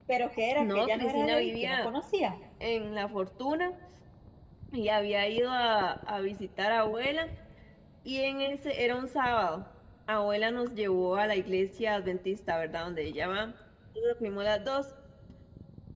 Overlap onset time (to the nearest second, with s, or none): 1 s